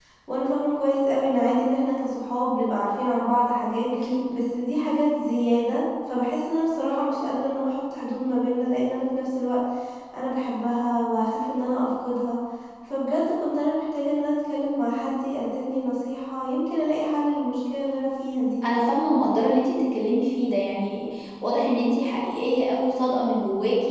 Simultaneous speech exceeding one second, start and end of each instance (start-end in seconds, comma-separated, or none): none